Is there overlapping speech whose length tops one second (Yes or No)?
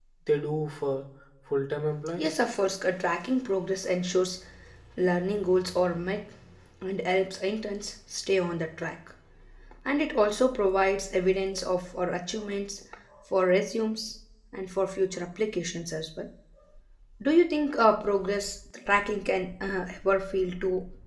No